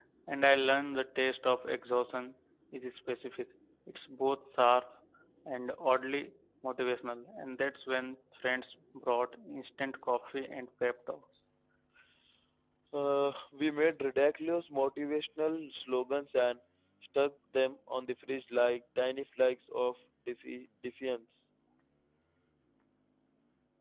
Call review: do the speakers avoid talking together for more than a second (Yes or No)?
Yes